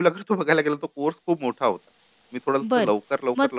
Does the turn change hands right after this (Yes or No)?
Yes